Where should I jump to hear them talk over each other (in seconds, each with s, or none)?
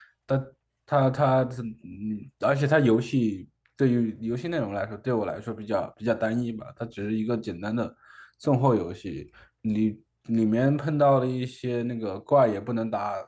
none